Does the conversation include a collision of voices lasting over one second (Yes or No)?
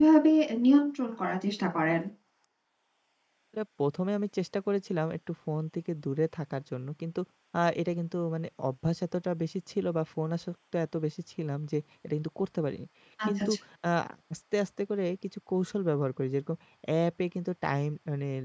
No